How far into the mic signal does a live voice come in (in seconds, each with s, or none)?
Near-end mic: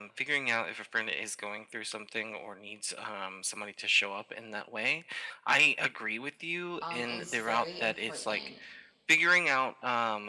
6.8 s